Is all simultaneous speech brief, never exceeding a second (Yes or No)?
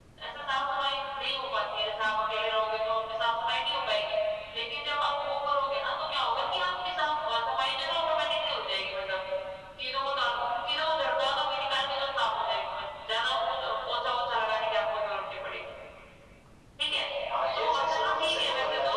No